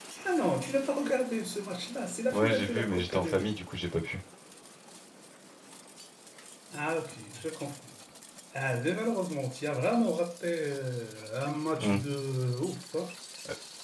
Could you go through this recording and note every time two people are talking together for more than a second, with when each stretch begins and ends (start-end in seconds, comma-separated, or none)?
2.3-3.5